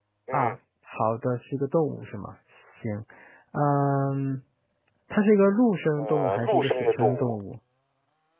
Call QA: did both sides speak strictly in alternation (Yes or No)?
No